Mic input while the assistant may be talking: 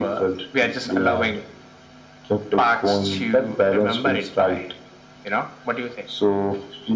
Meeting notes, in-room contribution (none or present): none